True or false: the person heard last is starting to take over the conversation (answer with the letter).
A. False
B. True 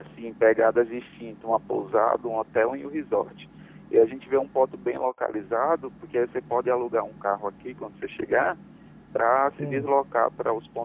A